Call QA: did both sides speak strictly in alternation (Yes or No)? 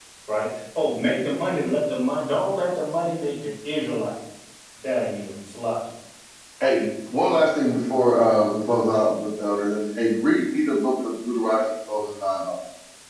Yes